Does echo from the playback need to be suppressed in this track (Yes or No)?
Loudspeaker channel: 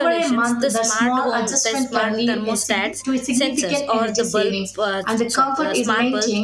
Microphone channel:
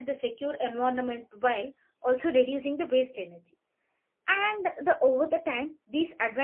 No